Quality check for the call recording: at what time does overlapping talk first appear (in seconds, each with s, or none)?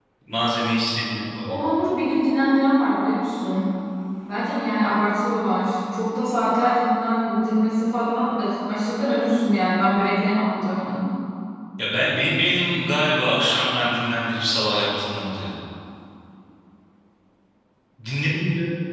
none